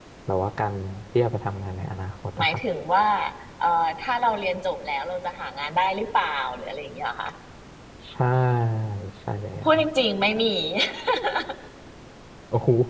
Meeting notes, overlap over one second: none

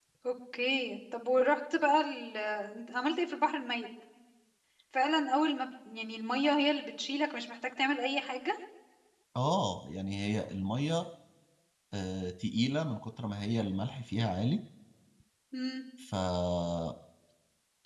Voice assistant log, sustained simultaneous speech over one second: none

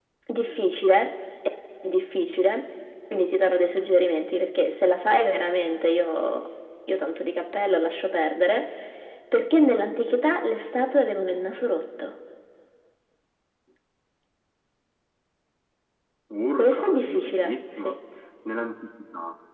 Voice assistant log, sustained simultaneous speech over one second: present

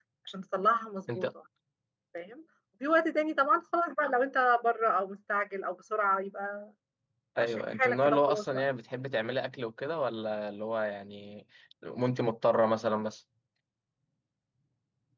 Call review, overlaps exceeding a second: present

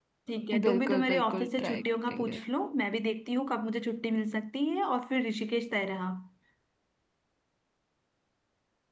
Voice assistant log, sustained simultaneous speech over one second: present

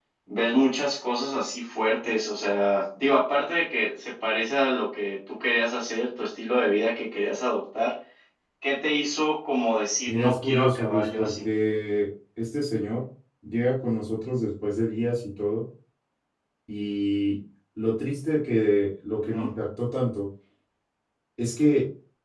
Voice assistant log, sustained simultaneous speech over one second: present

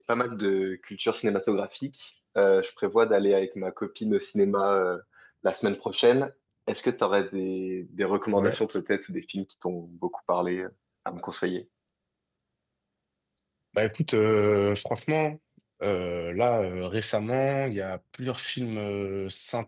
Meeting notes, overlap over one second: none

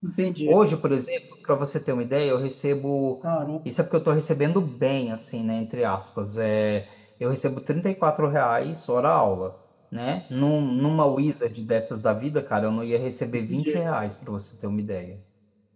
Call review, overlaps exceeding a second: none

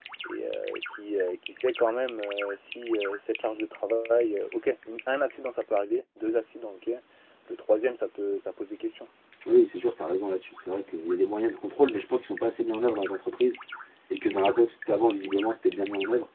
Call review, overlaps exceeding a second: none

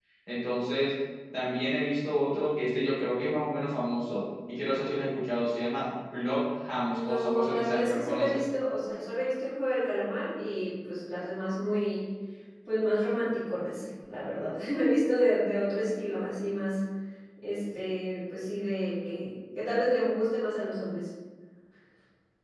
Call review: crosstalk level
present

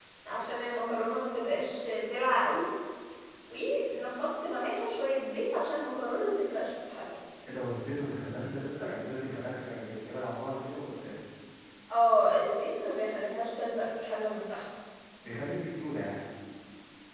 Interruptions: none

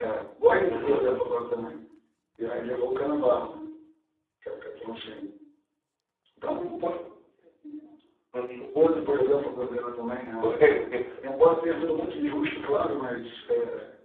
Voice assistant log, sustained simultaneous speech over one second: none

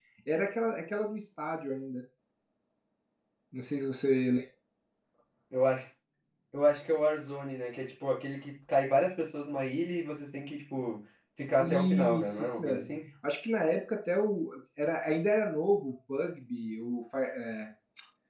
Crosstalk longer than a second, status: present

